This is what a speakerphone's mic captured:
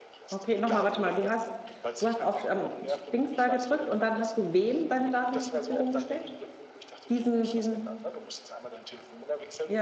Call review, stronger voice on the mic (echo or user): user